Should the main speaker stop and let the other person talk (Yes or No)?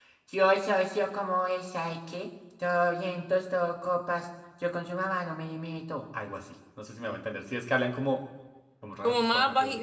Yes